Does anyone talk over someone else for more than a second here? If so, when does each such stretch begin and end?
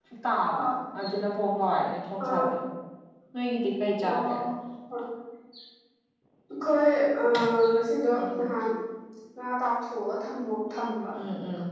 none

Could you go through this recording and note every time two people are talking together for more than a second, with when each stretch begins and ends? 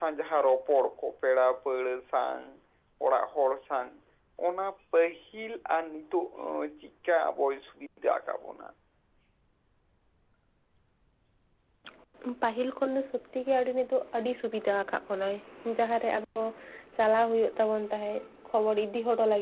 none

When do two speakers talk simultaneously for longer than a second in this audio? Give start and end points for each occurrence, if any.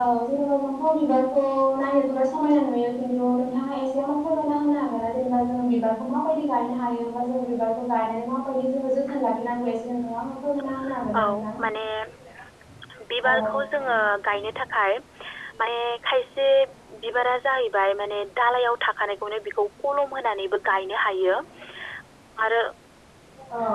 none

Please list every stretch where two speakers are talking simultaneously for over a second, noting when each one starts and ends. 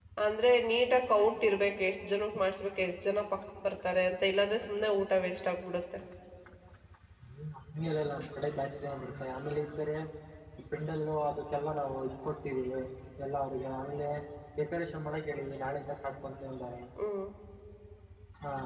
none

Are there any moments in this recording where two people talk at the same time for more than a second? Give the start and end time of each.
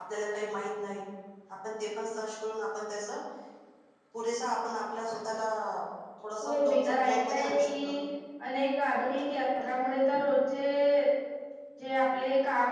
6.4-8.0

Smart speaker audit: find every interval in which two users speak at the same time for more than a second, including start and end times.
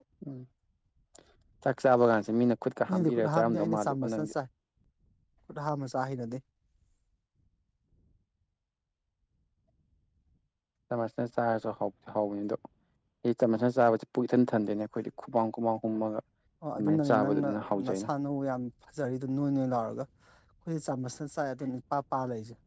2.9-4.3, 16.8-18.1

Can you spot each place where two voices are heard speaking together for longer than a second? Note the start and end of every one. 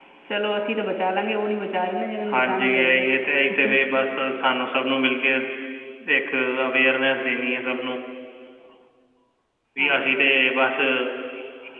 2.3-3.8

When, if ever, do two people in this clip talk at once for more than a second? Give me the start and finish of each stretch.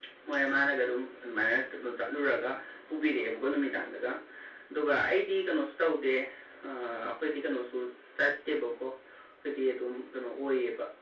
none

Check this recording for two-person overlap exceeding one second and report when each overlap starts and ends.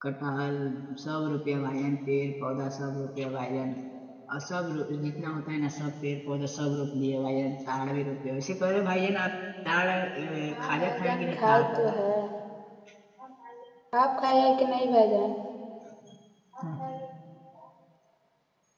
10.5-12.0

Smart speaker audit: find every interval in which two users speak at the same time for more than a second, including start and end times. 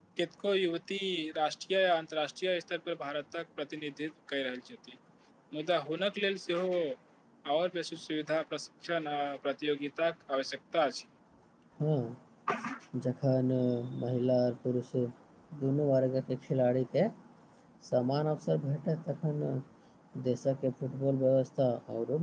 none

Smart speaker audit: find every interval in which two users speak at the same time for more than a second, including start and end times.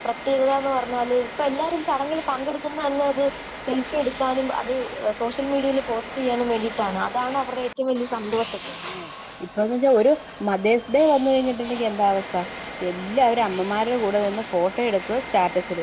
none

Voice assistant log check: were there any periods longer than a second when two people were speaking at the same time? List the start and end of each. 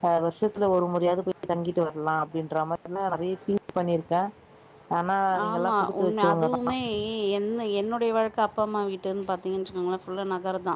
5.5-6.7

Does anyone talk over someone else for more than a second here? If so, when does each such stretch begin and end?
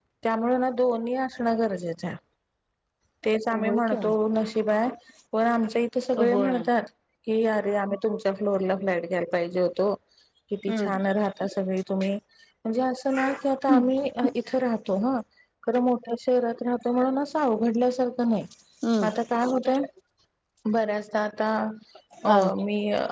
none

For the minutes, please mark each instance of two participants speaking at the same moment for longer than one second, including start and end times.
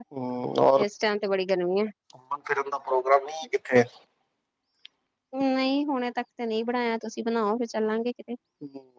none

